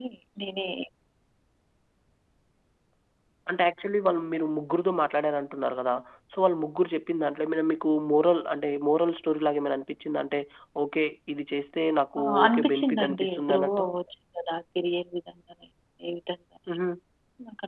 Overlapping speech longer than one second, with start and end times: 12.2-13.8

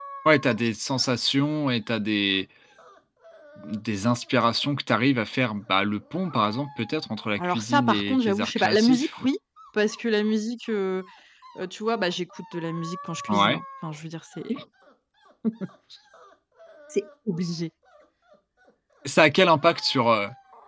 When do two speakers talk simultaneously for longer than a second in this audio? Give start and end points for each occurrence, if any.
7.4-9.2

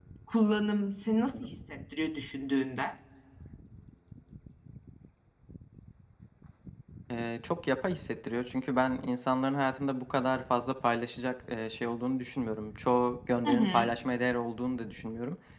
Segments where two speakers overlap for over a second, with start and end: none

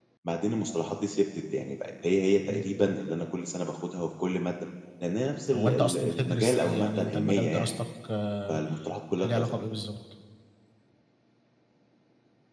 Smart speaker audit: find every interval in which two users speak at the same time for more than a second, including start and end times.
5.5-7.7

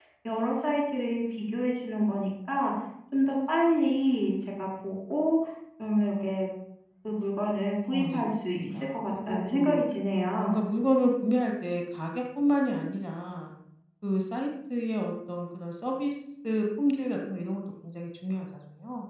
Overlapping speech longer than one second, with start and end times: 7.9-9.8

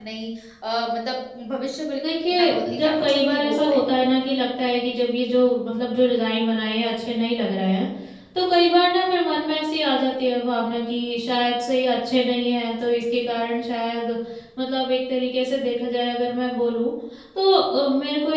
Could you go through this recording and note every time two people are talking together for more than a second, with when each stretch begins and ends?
2.3-3.8

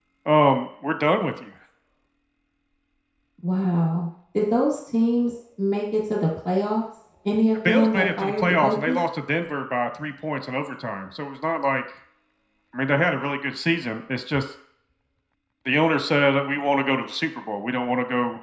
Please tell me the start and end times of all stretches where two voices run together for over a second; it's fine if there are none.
7.7-9.0

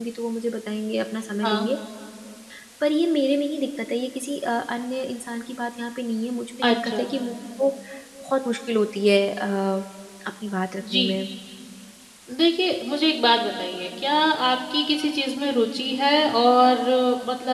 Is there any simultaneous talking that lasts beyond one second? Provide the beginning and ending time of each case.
none

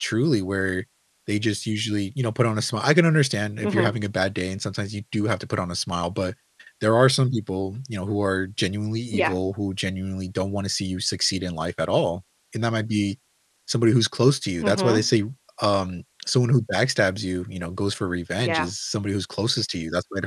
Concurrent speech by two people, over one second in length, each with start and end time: none

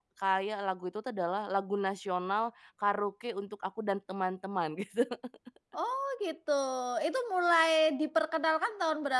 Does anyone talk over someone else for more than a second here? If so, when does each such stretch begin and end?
none

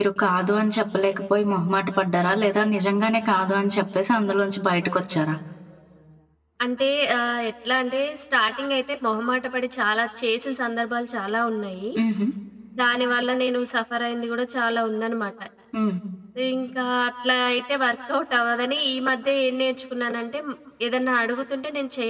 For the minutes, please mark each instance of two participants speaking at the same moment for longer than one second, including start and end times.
none

